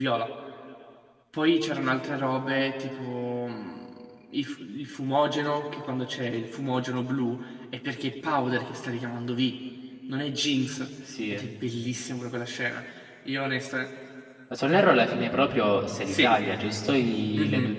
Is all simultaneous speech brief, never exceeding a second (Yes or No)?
Yes